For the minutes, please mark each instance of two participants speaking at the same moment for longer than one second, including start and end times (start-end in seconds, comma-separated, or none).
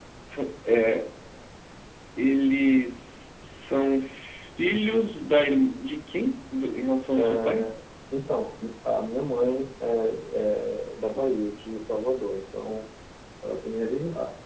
none